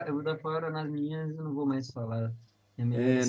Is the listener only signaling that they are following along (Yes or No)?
No